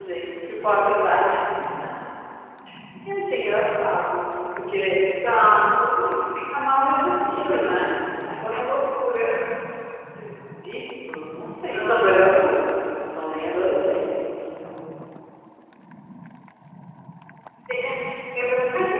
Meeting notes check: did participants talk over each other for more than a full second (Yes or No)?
No